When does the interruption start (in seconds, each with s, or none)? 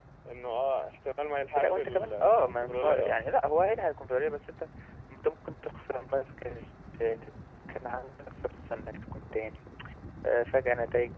1.6 s